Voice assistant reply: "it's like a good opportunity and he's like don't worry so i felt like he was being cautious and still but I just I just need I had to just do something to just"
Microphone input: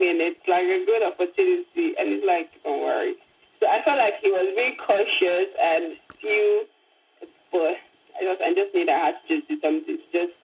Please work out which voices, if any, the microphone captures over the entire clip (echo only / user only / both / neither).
echo only